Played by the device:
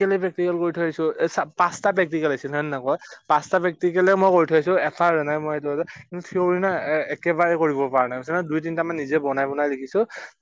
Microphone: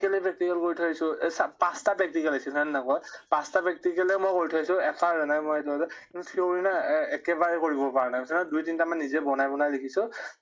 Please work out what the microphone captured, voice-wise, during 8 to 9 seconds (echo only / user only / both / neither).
echo only